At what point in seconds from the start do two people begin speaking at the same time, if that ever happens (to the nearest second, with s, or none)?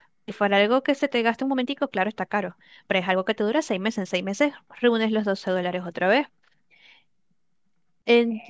none